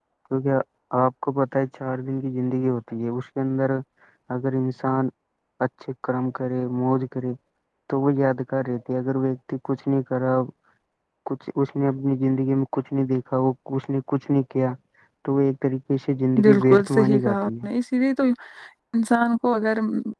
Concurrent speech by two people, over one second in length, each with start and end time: 16.4-17.6

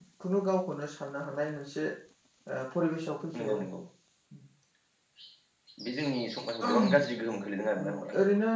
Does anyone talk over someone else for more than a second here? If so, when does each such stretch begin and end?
none

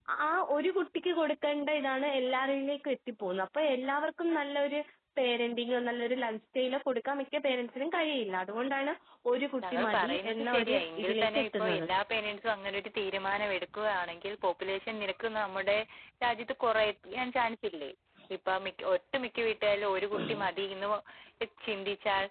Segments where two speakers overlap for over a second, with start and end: 9.7-11.8

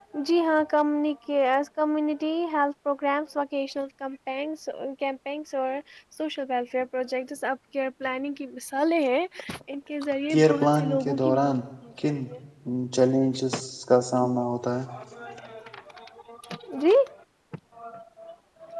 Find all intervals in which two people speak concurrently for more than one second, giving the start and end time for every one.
10.3-11.6

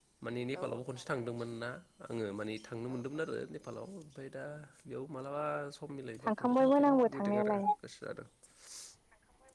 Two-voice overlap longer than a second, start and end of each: 6.3-7.6

